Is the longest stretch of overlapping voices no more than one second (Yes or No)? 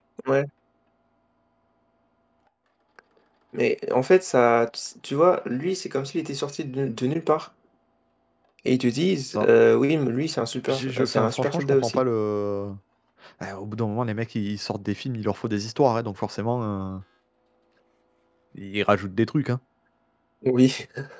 No